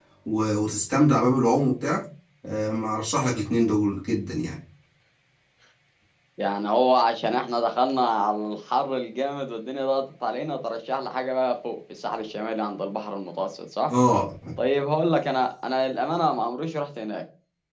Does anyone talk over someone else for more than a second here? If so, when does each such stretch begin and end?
none

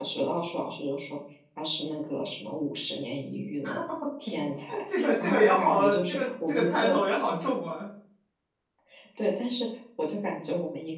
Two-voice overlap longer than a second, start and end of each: 5.0-7.0

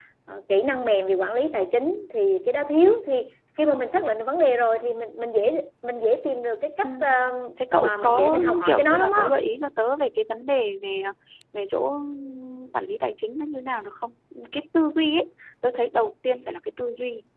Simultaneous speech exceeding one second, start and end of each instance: 7.8-9.2

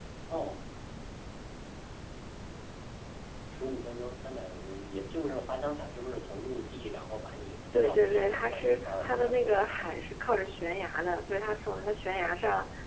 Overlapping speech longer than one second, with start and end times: 7.7-9.9

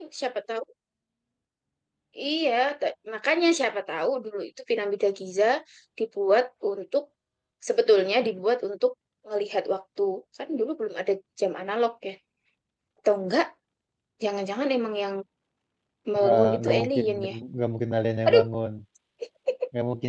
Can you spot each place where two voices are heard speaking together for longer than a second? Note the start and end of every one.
16.1-17.4

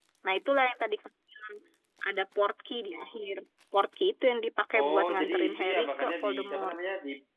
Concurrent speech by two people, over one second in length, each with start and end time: 4.8-6.8

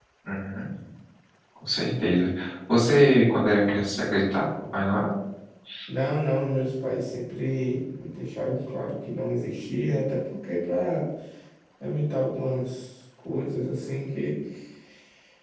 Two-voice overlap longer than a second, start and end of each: none

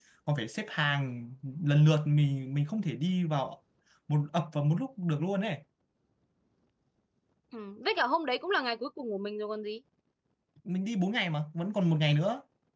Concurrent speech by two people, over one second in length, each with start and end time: none

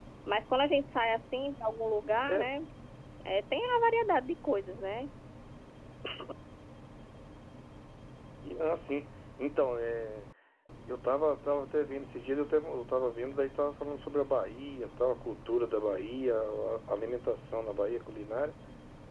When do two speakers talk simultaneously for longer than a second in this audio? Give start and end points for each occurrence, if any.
none

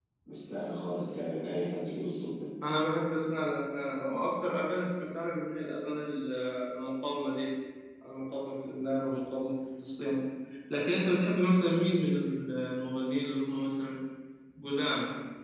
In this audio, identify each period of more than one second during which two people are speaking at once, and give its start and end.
none

